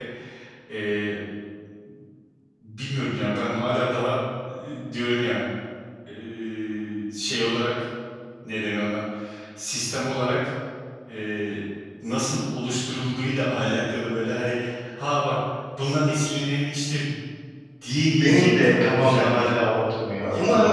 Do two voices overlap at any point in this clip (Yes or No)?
Yes